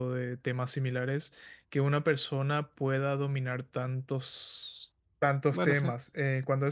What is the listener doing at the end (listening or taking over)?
listening